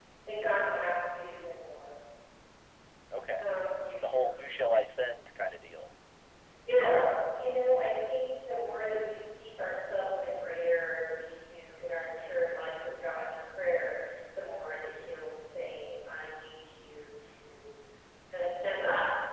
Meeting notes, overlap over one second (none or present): none